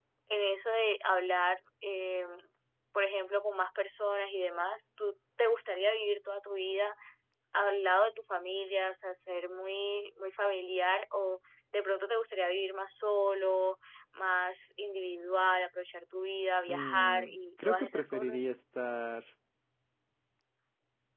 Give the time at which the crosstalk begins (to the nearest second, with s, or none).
17 s